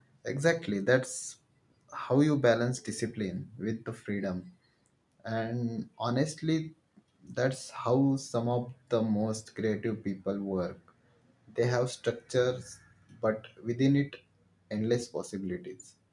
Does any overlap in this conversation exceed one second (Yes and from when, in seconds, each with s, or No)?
No